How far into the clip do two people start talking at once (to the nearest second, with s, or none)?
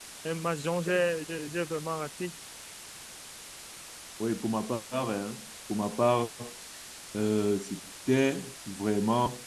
none